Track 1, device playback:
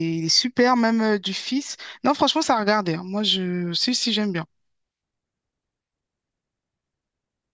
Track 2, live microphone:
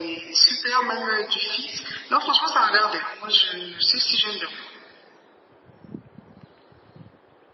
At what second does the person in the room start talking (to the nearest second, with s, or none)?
none